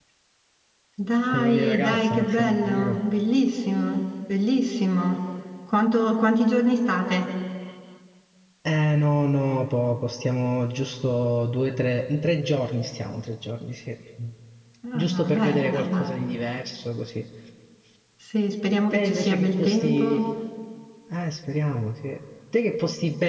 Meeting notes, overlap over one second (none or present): present